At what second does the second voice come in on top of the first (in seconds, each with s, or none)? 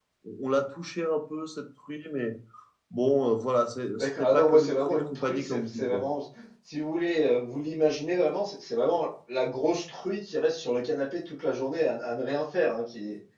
4.0 s